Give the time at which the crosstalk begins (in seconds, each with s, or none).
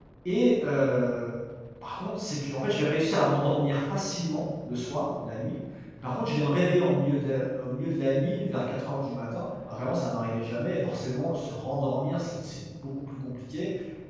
none